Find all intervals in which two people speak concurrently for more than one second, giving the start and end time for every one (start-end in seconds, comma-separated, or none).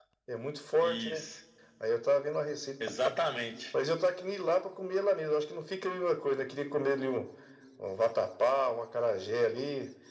none